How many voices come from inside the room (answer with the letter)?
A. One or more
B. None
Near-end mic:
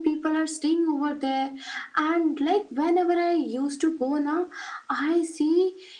B